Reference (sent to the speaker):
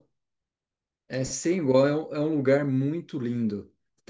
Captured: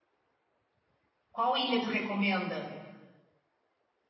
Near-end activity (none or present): present